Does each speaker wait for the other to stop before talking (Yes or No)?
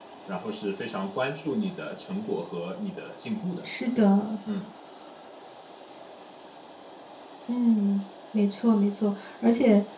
Yes